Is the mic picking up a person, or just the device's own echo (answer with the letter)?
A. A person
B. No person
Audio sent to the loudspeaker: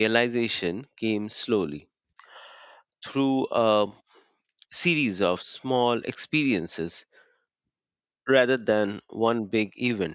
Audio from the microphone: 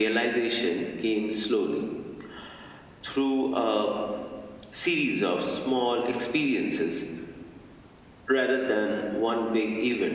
B